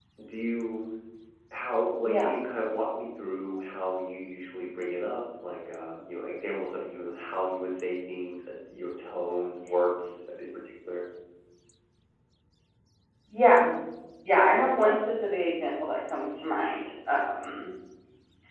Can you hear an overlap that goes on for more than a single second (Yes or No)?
No